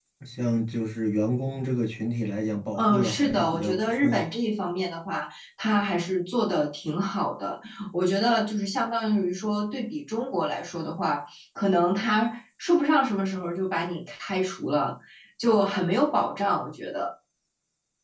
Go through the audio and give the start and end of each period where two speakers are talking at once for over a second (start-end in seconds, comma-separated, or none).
2.8-4.2